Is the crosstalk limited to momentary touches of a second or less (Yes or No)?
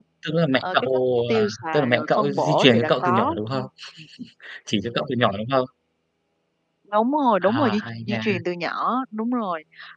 No